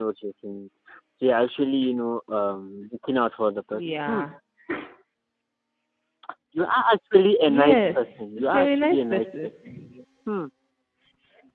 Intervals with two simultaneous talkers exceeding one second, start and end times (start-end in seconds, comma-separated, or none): 7.5-9.2